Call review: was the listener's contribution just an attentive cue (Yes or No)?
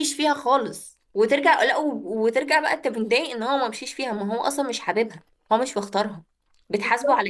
No